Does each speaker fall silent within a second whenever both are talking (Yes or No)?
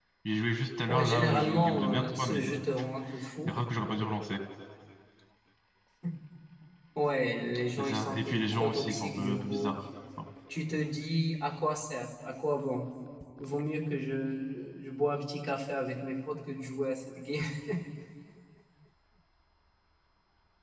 No